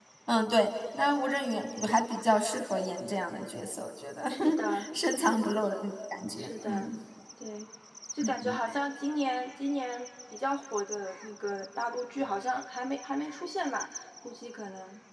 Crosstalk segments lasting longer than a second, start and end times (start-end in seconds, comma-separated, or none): none